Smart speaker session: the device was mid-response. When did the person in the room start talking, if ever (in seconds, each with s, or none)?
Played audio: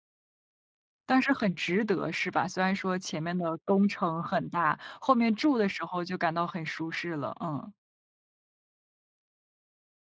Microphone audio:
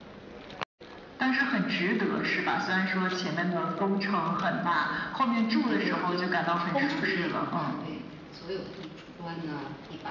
5.6 s